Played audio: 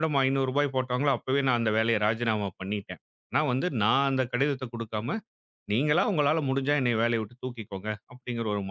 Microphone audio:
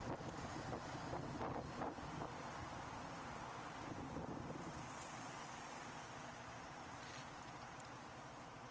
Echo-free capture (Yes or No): Yes